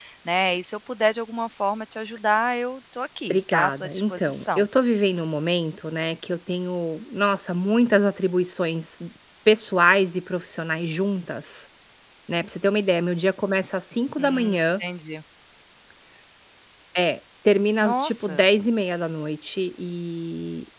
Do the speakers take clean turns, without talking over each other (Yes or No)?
No